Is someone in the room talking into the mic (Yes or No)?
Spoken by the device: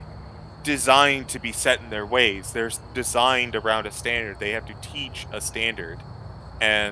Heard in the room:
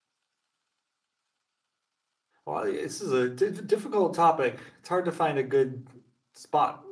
Yes